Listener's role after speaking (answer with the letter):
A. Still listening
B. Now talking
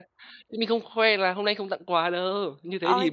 B